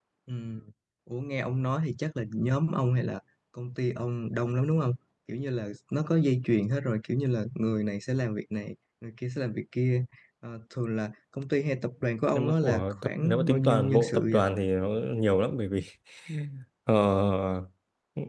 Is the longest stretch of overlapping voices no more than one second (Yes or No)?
No